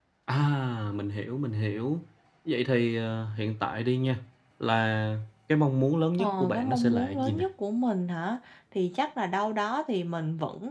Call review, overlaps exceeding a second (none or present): present